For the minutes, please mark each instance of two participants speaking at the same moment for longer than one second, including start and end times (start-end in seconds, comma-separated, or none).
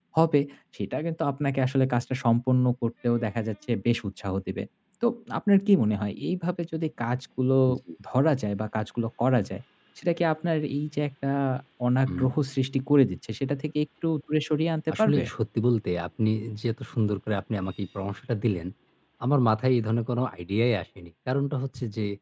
none